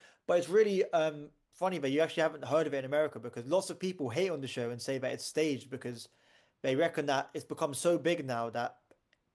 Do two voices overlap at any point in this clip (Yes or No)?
No